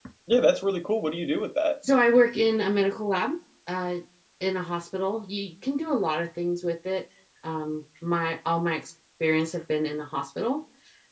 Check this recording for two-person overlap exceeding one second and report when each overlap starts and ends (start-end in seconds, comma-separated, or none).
none